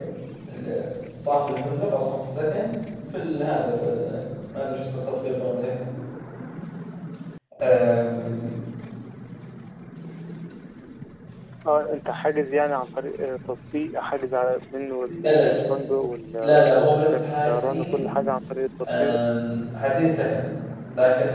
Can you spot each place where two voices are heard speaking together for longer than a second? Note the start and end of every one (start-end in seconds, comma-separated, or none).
16.4-18.1